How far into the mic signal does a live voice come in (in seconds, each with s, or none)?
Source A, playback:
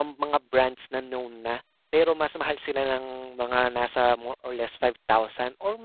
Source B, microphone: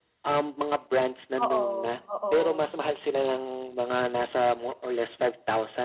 1.4 s